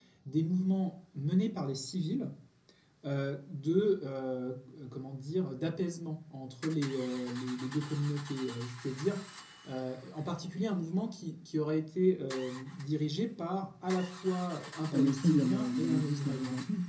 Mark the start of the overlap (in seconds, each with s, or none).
14.9 s